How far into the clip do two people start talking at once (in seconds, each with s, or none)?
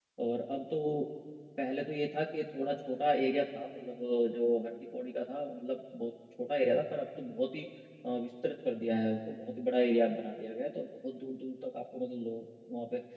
none